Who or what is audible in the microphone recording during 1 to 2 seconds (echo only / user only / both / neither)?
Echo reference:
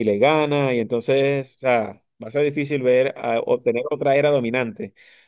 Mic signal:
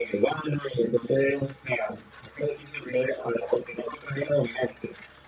echo only